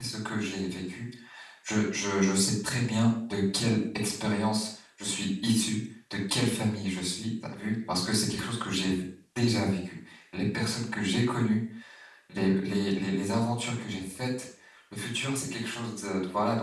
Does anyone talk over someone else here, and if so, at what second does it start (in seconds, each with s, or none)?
none